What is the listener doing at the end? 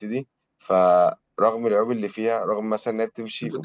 taking over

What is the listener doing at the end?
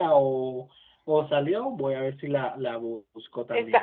taking over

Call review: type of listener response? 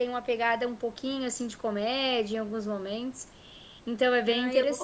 taking over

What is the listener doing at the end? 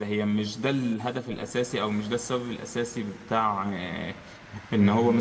listening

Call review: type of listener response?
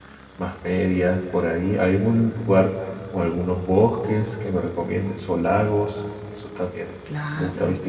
taking over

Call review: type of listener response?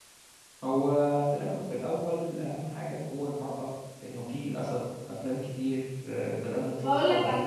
taking over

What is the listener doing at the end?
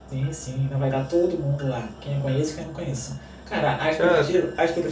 listening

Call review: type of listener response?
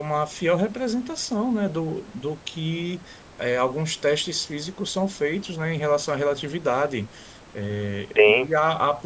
listening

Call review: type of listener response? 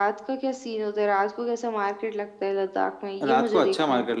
taking over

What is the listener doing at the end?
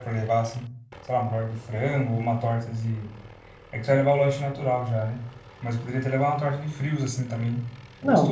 taking over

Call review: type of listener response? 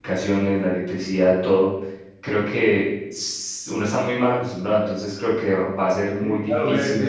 taking over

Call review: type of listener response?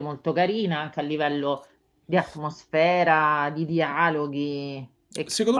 taking over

